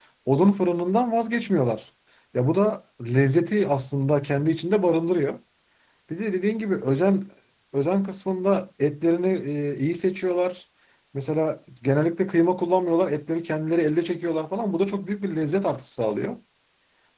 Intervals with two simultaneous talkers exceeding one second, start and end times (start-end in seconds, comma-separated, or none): none